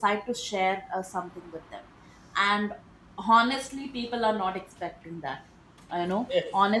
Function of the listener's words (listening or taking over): listening